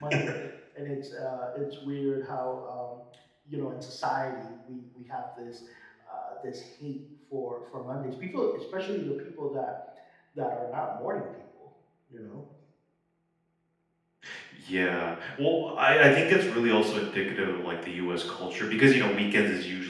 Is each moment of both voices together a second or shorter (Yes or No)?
Yes